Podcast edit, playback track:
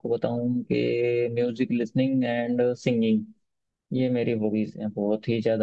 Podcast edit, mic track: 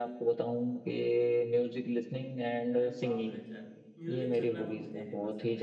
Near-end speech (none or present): present